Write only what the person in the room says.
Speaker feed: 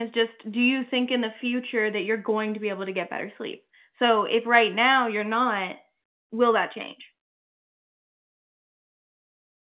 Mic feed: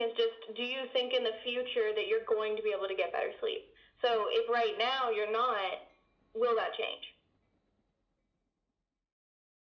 none

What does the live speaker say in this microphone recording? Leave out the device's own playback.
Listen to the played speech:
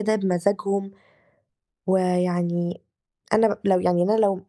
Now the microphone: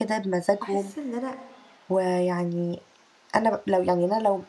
باحس إن أنا

